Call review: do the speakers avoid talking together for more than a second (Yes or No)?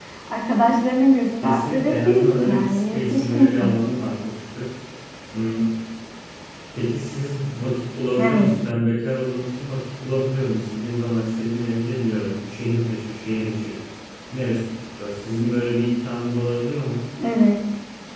No